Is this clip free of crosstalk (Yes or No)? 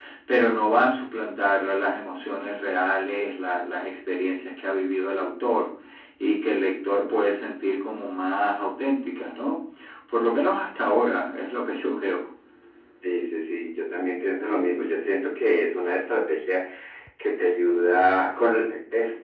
Yes